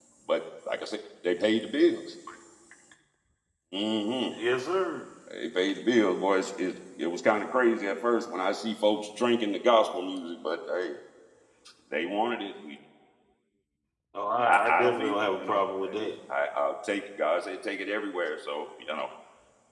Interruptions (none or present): present